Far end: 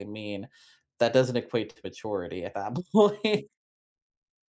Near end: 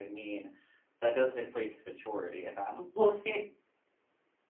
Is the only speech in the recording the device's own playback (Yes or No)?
Yes